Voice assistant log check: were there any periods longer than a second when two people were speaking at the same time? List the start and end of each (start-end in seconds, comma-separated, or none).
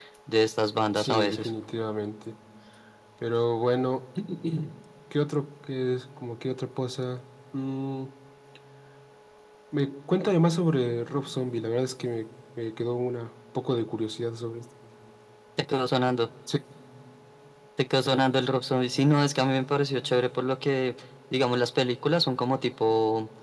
none